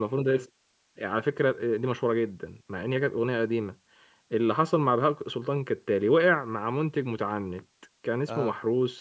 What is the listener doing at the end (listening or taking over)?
listening